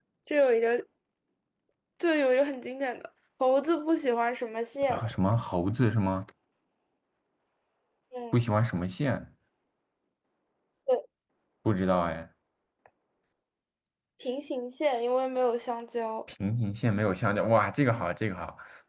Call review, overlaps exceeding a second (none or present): none